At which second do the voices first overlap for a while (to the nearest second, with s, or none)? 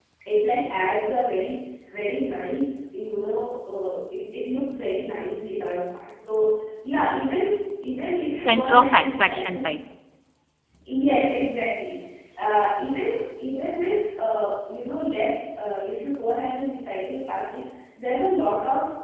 8 s